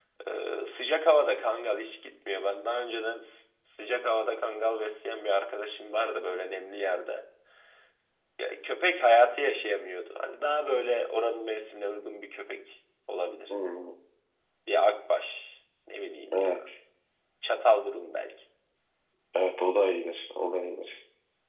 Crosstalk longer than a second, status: none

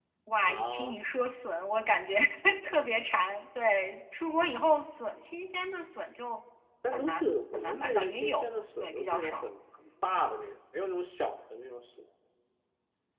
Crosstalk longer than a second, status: present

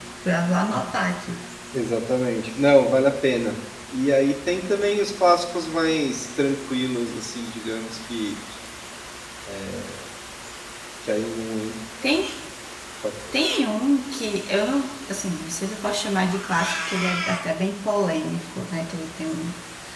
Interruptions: none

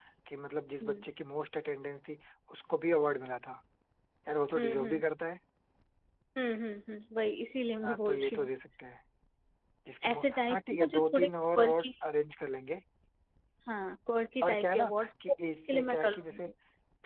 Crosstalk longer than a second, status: present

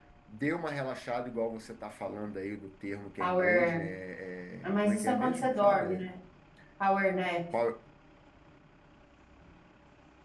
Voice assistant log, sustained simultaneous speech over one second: present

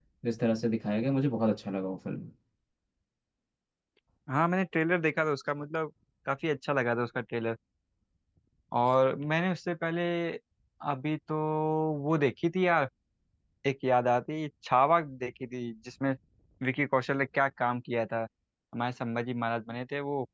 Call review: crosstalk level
none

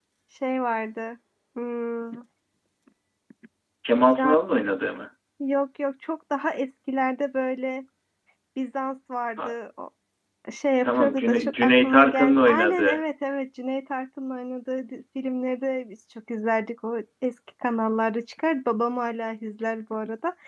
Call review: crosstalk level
present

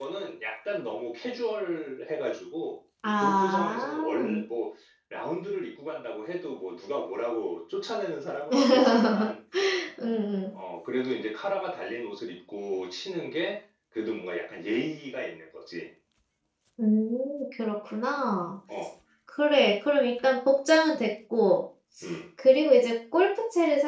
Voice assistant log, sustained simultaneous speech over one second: present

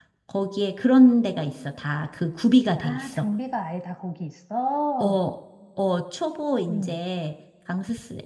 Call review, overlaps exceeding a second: none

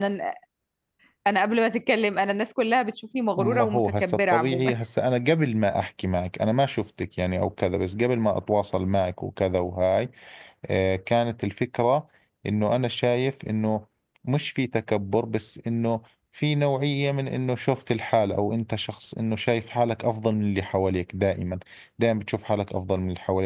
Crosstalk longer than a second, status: present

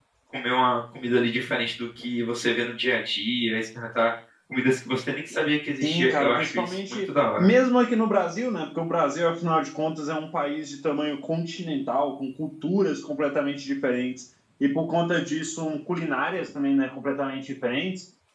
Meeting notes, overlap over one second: present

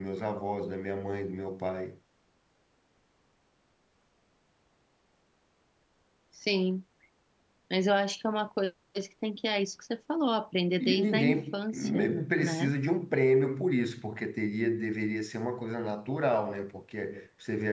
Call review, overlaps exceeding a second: present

